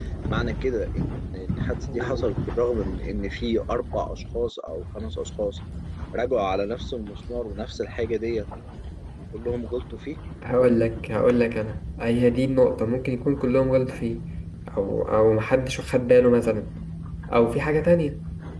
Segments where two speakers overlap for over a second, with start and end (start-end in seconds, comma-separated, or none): none